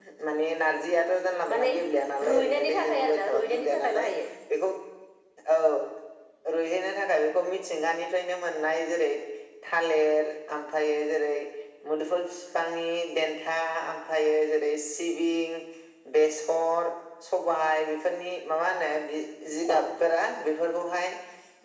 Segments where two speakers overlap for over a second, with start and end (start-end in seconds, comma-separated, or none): 2.3-4.1